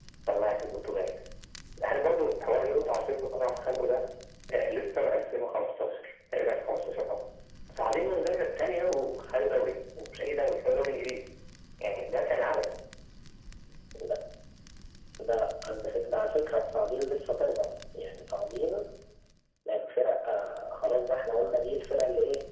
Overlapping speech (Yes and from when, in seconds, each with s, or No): No